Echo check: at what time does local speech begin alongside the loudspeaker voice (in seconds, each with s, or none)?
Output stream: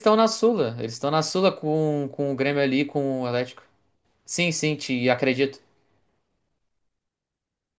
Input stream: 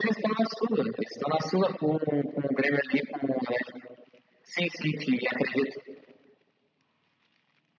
none